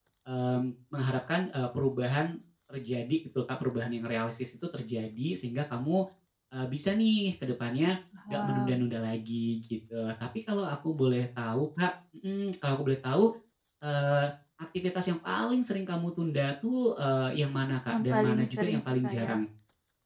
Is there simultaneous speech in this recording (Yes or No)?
Yes